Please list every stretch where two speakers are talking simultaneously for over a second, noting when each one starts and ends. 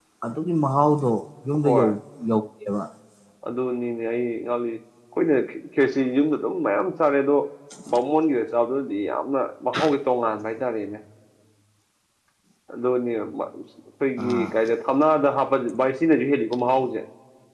none

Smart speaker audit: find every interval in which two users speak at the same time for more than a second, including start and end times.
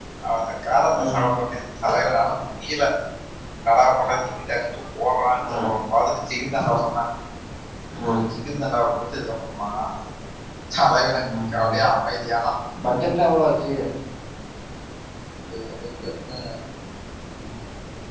none

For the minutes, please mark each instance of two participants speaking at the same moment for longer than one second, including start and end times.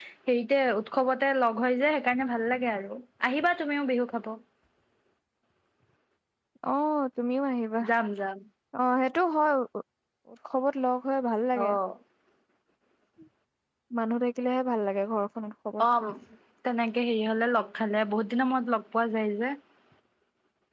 none

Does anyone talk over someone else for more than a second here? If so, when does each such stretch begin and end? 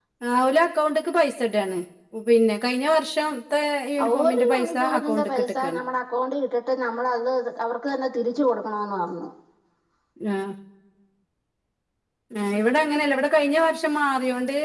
4.2-5.8

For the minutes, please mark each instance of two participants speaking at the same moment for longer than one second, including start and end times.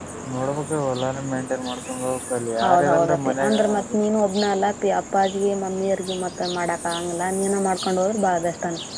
2.6-4.0

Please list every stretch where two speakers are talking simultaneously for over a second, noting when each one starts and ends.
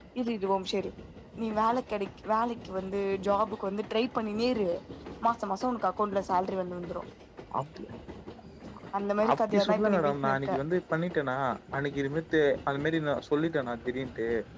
9.3-10.6

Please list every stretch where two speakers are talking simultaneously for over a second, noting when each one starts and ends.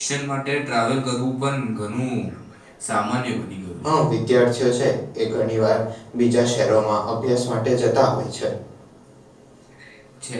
none

